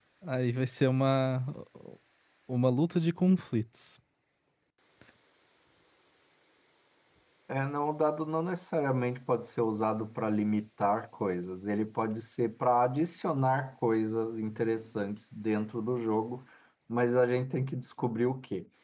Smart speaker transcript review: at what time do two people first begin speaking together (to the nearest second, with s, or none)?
none